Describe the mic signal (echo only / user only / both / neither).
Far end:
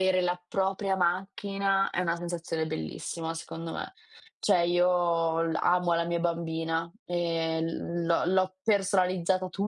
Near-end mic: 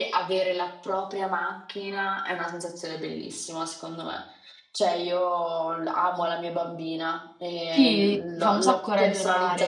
both